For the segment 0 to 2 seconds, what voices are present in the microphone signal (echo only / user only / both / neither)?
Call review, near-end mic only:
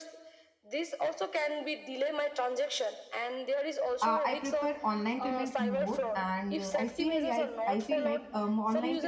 echo only